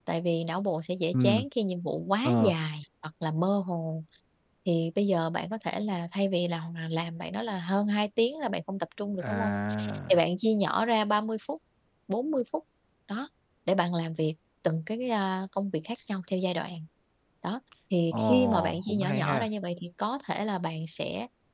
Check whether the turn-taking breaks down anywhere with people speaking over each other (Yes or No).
Yes